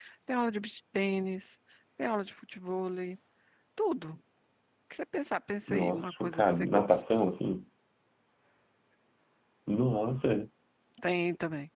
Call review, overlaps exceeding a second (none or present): present